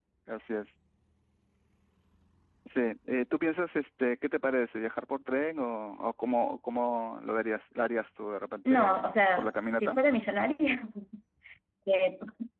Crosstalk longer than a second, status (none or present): present